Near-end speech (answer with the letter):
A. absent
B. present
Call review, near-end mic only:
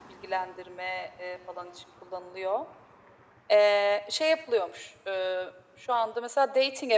A